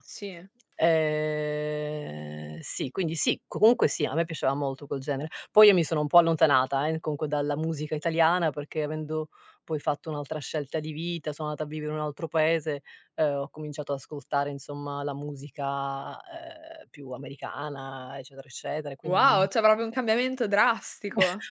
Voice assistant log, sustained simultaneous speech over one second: none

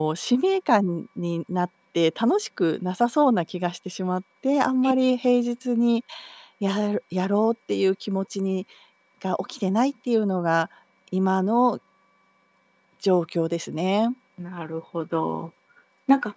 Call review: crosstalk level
none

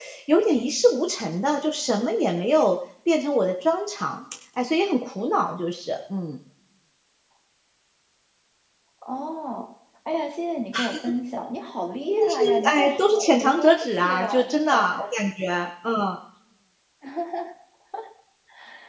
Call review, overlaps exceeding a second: present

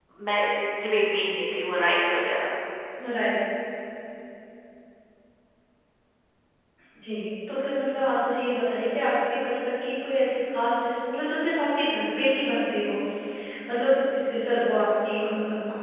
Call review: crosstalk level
none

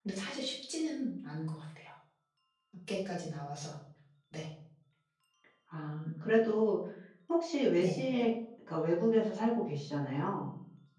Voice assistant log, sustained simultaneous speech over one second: none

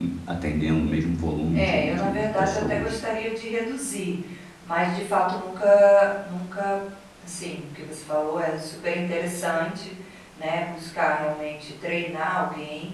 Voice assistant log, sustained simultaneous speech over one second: present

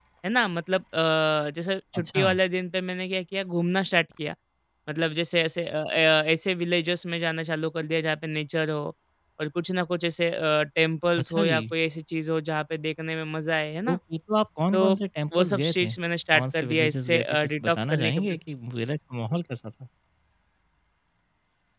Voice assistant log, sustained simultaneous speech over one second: present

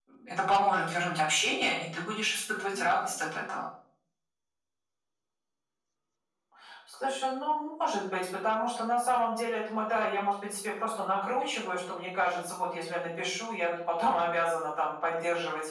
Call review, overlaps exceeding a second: none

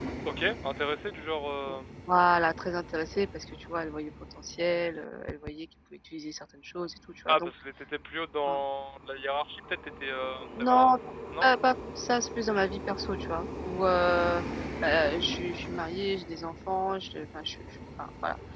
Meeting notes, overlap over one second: none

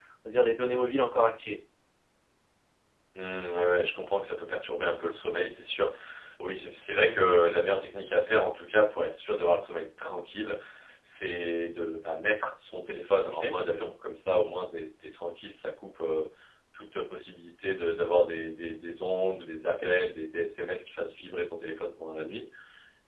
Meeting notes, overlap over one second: none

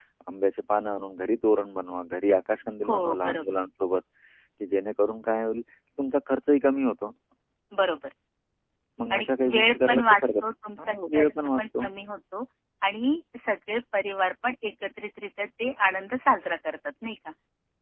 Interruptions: present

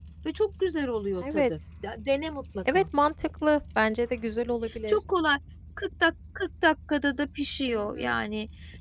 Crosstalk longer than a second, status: none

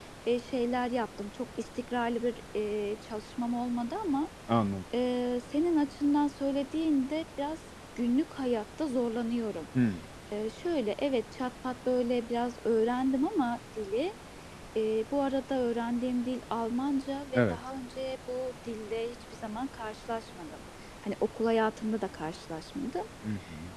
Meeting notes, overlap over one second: none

